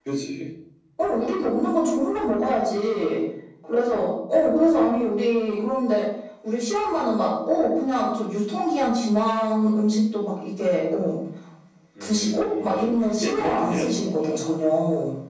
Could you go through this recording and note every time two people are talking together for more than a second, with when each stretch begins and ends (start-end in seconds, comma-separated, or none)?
12.0-14.4